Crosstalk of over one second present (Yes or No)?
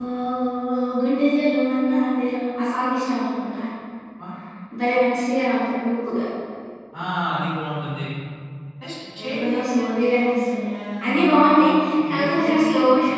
Yes